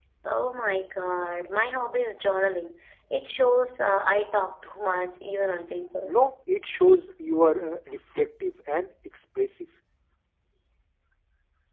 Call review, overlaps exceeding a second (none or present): none